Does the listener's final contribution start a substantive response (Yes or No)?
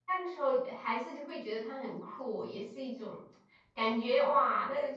No